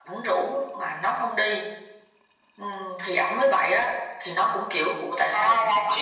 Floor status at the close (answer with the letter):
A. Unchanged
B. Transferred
B